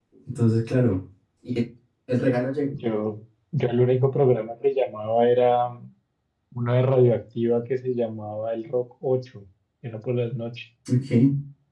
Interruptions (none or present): none